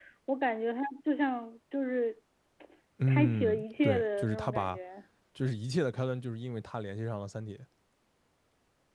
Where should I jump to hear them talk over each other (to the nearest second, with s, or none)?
3 s